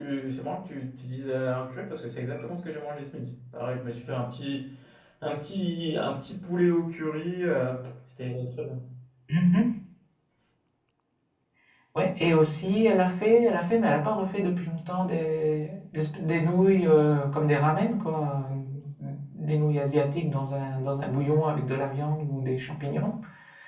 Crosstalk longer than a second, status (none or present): none